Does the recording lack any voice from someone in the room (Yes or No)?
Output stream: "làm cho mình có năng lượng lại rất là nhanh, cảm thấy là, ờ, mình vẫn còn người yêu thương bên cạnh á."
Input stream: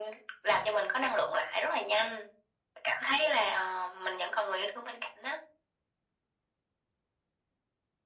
Yes